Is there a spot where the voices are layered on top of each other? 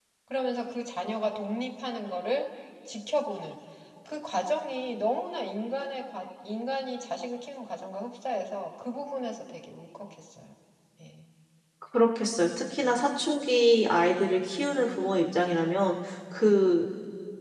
No

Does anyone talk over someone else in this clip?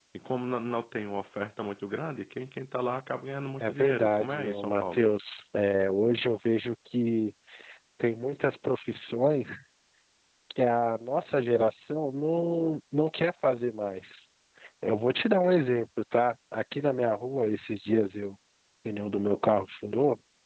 Yes, from 3.6 s

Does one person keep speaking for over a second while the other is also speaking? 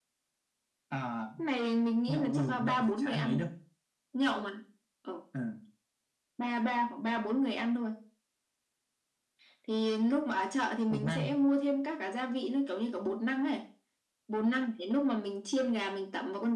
Yes, from 2.1 s

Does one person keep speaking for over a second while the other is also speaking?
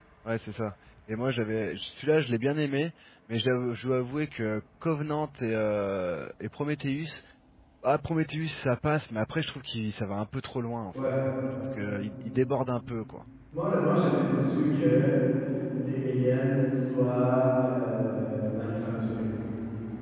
No

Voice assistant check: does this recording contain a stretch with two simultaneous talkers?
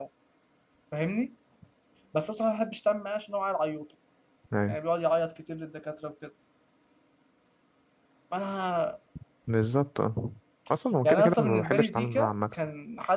Yes, from 11.0 s

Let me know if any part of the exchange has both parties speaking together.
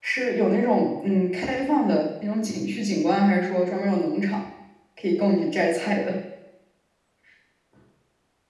No

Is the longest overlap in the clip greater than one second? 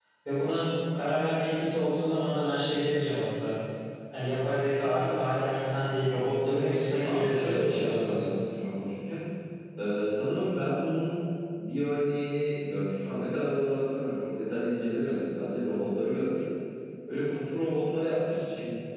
Yes, from 6.4 s

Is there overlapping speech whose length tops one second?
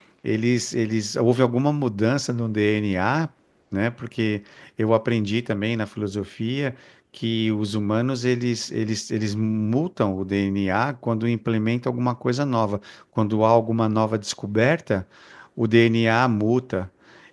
No

